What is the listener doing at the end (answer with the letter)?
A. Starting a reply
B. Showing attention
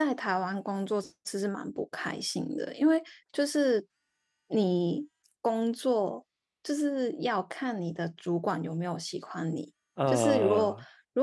B